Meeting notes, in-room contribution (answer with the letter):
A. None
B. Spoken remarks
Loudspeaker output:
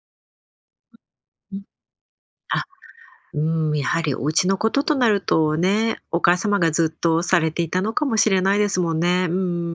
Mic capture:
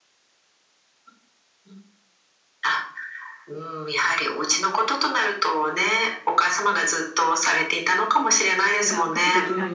B